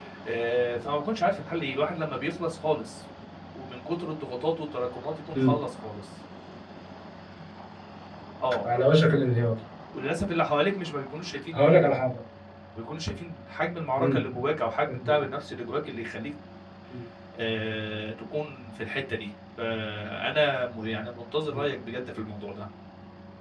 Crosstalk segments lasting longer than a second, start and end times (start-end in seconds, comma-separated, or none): none